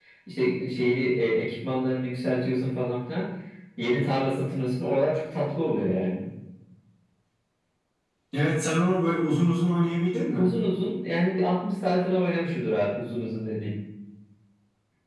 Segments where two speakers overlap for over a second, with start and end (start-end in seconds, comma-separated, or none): none